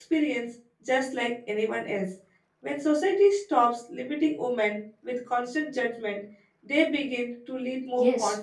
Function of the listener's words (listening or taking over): taking over